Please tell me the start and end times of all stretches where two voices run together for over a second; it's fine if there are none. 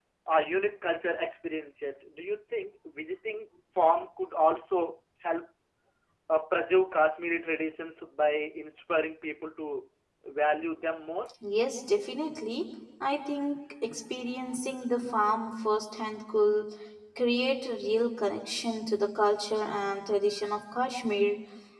none

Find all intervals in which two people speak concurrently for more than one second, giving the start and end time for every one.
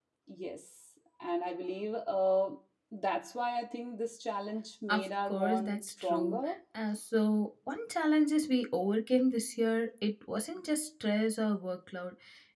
4.9-6.4

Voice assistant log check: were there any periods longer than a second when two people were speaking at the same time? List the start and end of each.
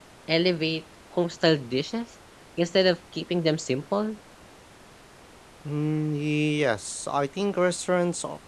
none

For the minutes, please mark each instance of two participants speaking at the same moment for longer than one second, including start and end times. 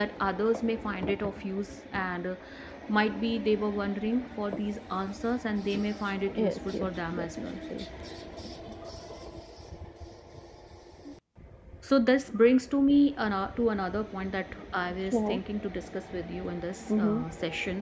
6.3-7.6

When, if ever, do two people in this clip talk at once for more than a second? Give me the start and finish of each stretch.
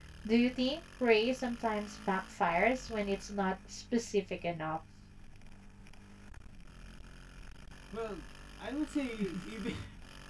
none

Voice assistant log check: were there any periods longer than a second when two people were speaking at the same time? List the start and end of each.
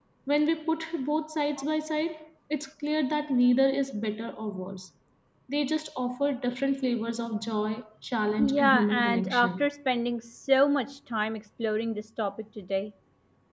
8.4-9.7

